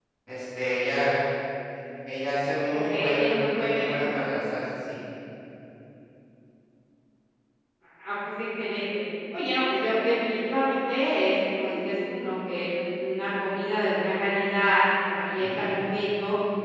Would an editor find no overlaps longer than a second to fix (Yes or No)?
No